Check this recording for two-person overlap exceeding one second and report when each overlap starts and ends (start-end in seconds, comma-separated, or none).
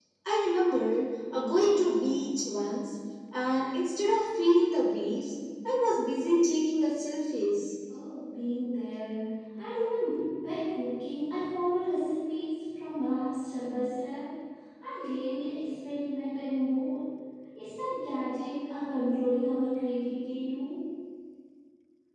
none